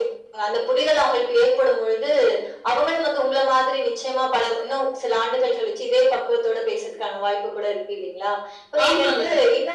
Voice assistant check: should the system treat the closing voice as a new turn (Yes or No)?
No